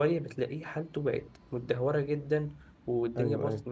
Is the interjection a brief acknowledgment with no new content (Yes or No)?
Yes